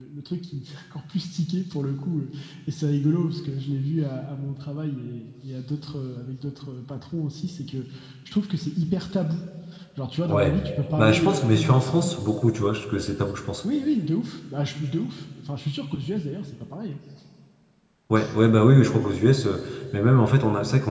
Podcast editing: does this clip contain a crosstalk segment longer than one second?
Yes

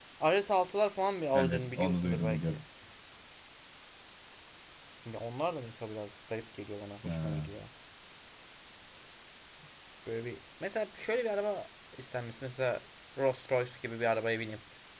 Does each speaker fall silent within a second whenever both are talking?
No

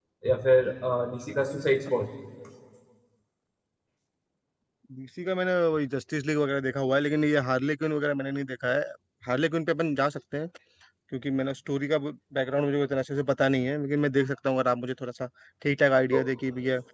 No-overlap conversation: Yes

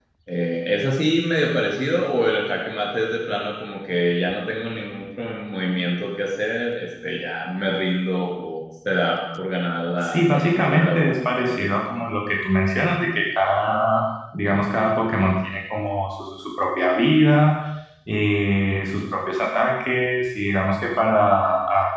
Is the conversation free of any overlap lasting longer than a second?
No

